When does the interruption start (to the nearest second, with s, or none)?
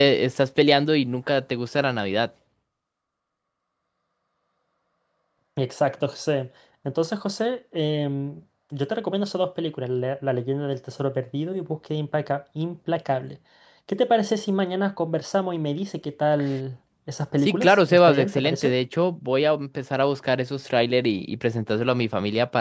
17 s